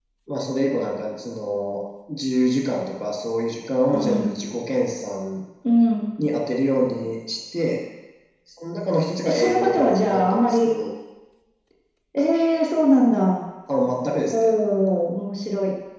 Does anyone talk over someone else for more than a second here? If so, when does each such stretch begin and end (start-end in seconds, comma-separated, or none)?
9.2-10.8